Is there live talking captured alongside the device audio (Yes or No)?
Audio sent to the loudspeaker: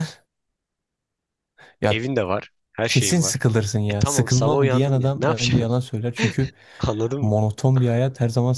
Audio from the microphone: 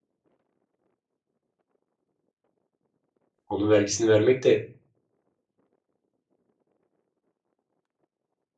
Yes